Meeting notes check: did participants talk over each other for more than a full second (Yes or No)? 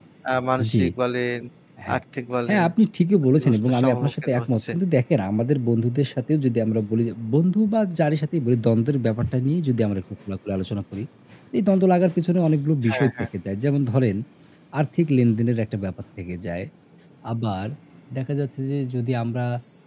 Yes